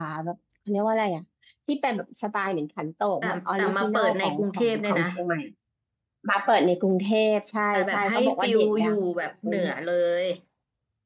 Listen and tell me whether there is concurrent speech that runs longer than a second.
Yes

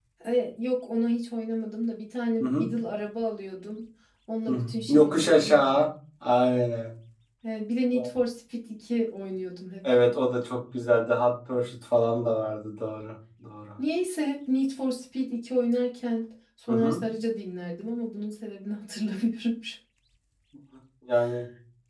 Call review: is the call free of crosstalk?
No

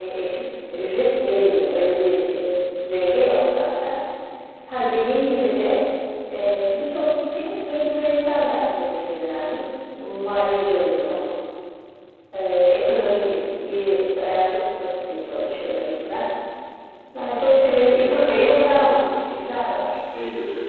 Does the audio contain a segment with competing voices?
Yes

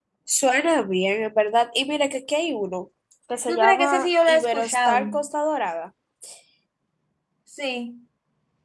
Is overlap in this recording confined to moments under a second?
No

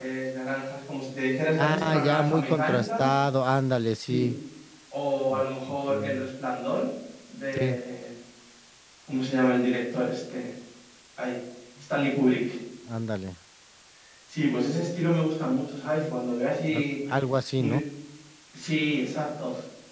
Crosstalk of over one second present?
Yes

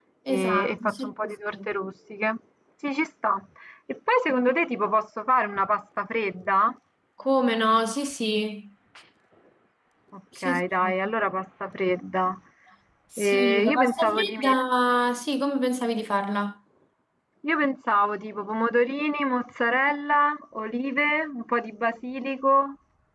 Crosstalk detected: Yes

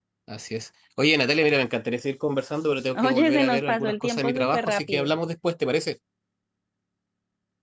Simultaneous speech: Yes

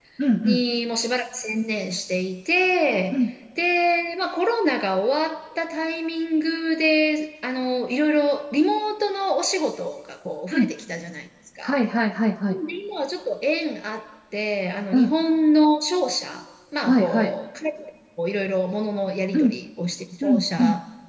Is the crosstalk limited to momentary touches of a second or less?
Yes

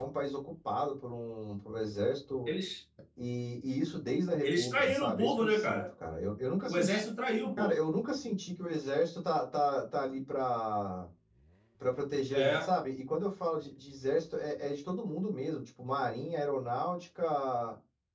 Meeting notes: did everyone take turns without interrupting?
No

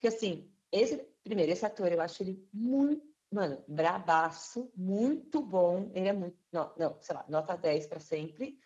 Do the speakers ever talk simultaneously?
No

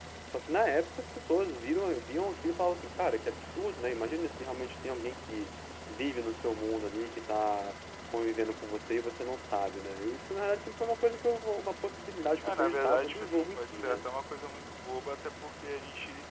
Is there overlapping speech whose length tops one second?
Yes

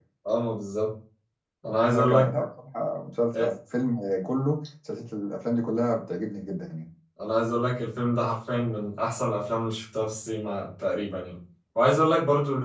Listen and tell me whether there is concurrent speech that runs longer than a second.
No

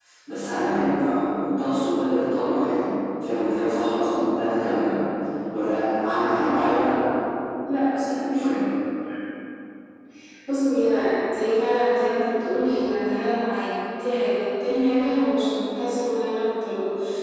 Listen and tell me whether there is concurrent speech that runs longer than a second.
No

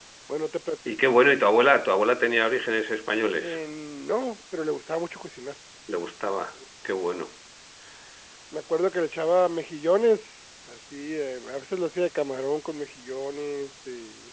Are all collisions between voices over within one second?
Yes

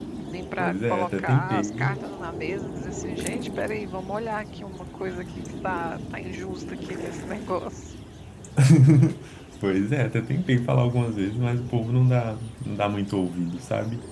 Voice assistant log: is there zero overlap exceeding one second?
No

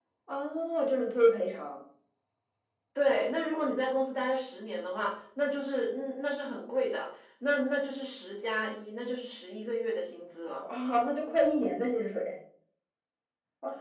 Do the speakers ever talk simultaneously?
No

